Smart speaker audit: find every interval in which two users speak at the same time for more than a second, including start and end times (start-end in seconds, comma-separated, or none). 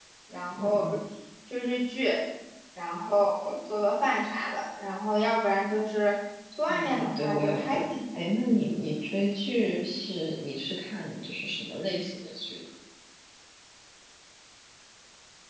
6.6-7.8